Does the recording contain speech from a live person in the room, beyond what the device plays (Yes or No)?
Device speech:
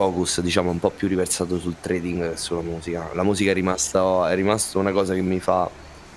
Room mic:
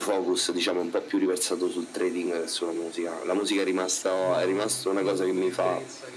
Yes